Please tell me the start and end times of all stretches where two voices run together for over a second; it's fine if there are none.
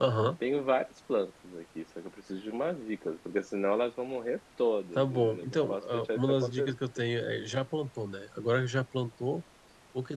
5.0-7.0

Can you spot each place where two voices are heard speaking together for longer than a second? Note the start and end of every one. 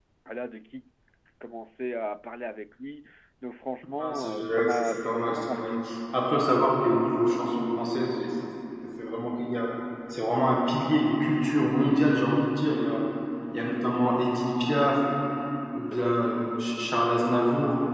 4.0-5.7

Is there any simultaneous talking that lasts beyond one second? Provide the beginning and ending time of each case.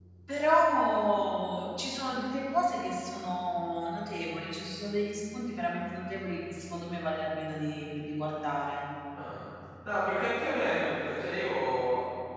none

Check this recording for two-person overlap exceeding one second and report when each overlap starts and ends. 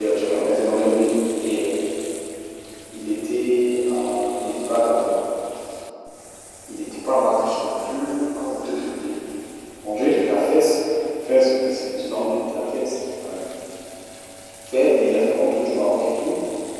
none

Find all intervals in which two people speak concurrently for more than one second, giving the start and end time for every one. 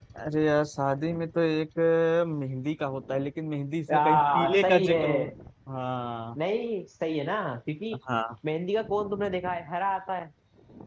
3.9-5.3

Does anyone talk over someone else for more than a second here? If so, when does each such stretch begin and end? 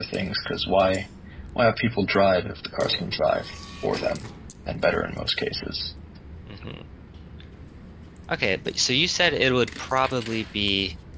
none

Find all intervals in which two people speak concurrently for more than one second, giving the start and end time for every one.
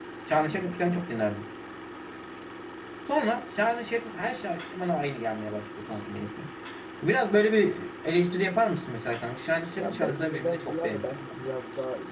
9.8-11.5

